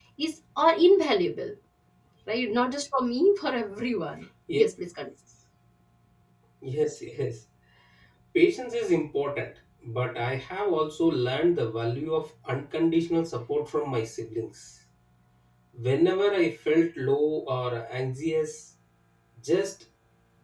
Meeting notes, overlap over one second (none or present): none